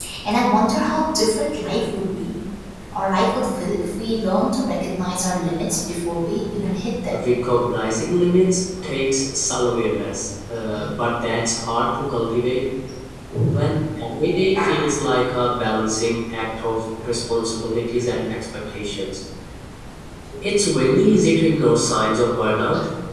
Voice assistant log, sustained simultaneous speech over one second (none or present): none